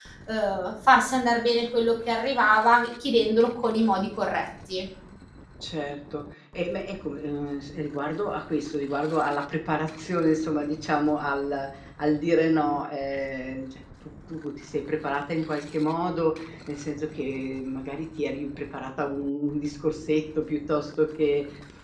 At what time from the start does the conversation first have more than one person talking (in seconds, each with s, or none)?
none